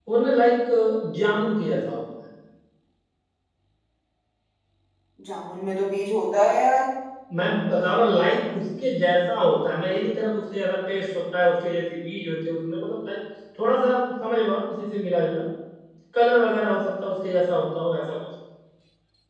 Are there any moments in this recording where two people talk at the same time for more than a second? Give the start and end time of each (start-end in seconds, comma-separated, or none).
none